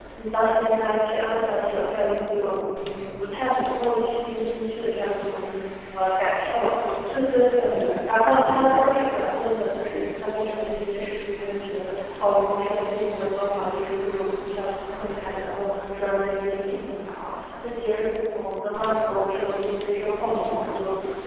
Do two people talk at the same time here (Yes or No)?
Yes